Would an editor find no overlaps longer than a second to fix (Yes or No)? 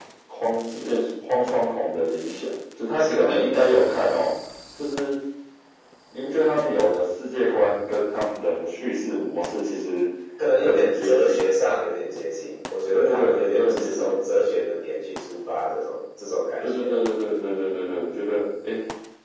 No